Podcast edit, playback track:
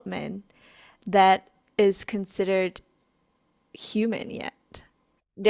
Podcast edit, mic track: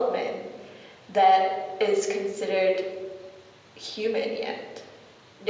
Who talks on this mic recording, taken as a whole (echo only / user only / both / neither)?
echo only